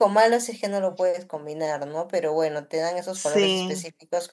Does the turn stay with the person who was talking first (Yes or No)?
Yes